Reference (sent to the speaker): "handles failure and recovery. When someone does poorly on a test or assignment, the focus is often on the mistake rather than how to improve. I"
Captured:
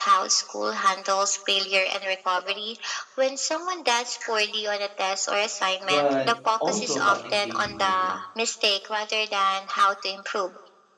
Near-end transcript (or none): but also about engaging with it.